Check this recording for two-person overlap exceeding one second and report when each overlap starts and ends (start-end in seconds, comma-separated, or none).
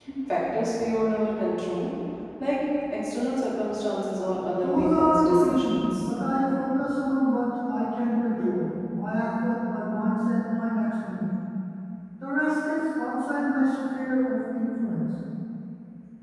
4.6-6.1